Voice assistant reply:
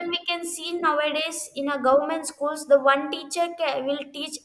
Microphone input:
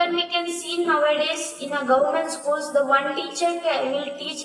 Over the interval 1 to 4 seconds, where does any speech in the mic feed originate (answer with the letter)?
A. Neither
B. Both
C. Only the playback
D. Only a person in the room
C